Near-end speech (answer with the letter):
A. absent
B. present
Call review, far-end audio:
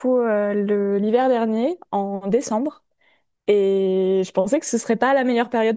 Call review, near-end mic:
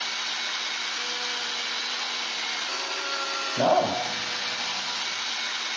B